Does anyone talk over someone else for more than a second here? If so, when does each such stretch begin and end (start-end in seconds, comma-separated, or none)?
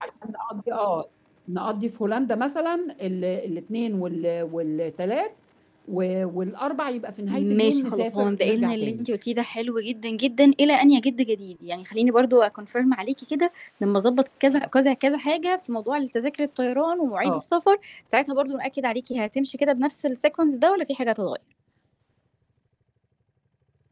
7.3-9.1